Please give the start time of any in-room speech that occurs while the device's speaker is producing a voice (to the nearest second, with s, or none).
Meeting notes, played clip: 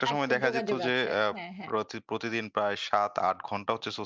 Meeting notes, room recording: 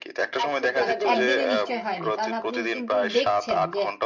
1 s